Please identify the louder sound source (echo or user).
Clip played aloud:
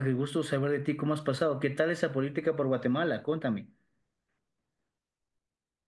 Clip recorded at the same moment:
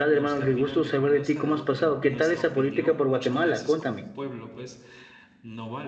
echo